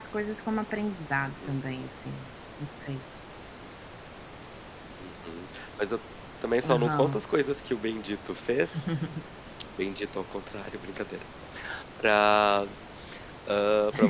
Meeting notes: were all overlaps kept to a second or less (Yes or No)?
Yes